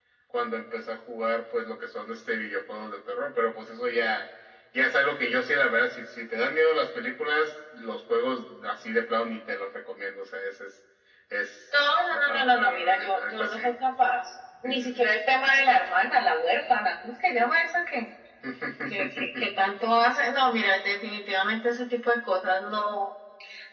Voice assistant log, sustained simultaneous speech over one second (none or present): present